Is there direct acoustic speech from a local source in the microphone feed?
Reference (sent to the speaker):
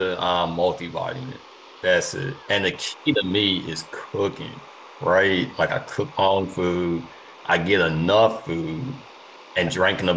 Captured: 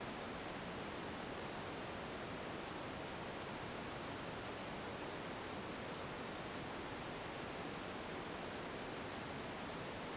No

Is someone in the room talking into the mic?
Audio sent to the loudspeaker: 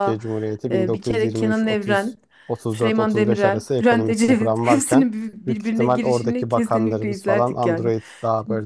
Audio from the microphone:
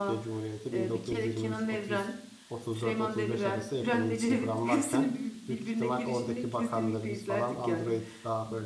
No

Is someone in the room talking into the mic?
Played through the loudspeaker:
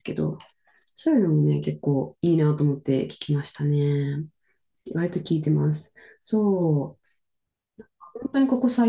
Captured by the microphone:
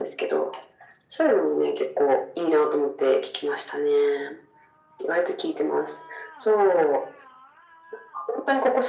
No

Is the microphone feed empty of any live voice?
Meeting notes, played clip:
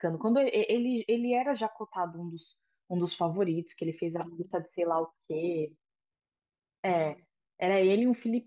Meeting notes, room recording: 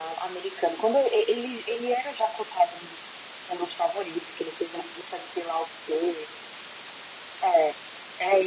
Yes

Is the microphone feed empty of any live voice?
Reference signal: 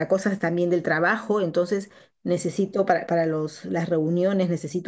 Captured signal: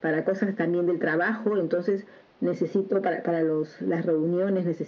Yes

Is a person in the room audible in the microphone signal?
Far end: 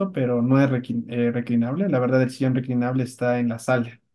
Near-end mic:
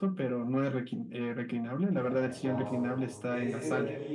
Yes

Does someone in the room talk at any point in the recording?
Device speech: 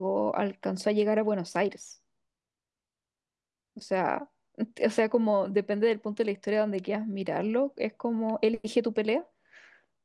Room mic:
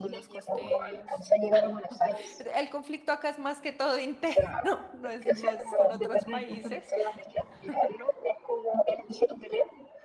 Yes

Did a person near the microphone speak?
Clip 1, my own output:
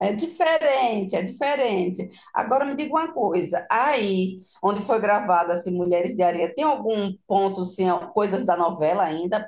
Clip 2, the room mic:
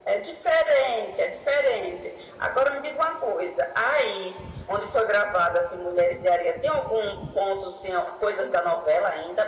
No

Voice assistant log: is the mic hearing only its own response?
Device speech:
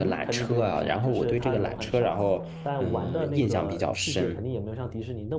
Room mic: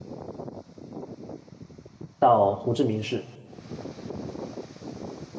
No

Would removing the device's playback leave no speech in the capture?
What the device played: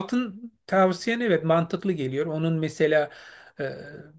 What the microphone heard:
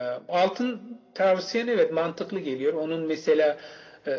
Yes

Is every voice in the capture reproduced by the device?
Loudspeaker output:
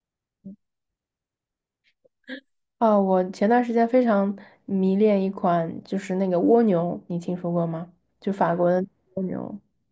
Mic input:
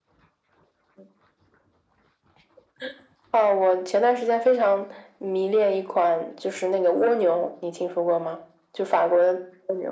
Yes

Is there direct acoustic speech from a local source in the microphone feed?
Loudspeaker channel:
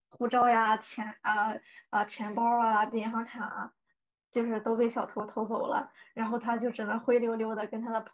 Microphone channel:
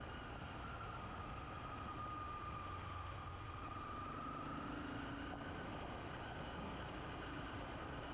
No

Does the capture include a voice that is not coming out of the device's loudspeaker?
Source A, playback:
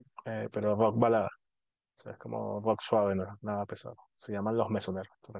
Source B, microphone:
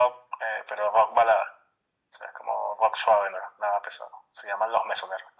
No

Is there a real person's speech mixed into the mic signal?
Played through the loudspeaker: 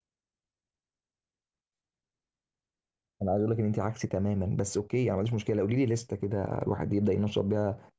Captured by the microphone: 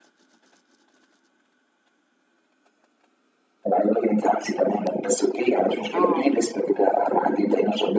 Yes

